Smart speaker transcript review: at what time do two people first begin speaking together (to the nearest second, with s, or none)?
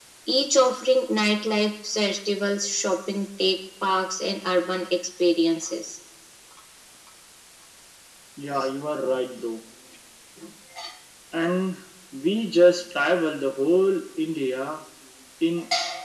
none